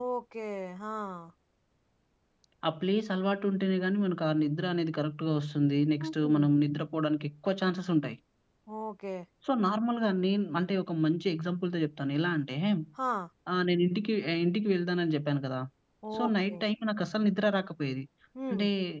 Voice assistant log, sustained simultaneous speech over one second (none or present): none